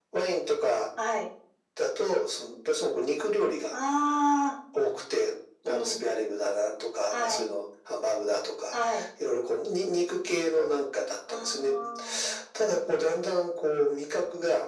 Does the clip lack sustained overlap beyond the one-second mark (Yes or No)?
Yes